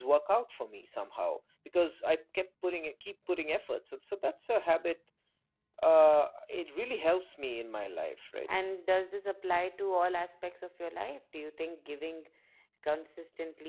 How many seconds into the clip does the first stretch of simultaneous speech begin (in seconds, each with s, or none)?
none